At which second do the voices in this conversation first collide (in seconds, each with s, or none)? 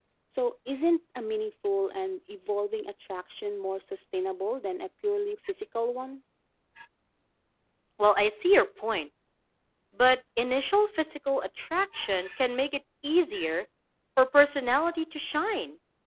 none